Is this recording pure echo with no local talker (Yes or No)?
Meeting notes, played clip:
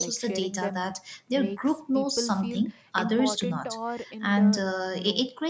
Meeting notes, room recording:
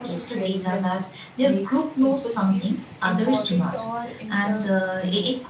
Yes